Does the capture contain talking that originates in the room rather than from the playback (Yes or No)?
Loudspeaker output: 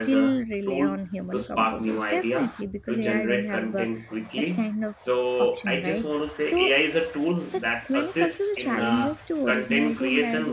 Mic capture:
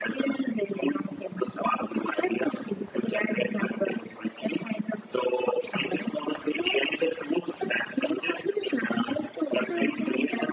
Yes